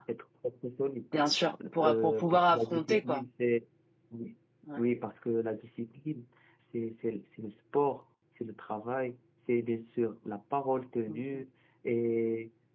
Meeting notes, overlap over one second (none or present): present